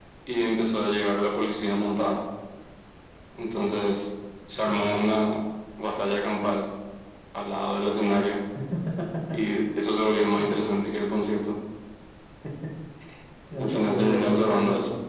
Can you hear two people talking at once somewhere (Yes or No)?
Yes